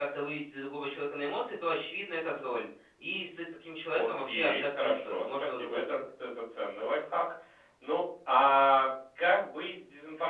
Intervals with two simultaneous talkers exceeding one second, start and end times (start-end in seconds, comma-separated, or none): 3.9-6.0